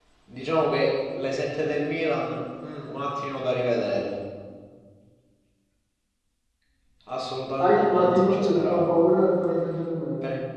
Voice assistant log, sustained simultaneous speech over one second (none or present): present